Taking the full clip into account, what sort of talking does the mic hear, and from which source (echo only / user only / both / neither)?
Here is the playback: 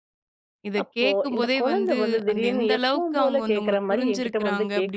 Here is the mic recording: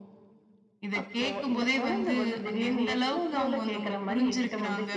echo only